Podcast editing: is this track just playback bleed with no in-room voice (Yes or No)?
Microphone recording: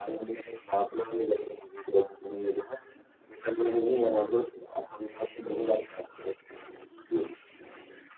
Yes